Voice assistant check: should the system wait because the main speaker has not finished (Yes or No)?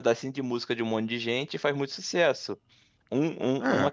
Yes